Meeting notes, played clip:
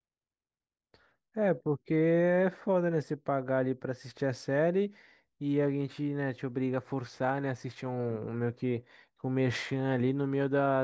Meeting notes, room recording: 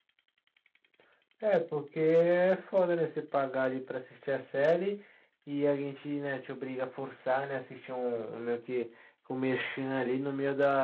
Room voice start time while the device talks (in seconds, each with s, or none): none